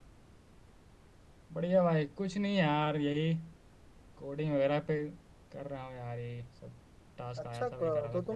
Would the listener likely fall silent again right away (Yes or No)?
No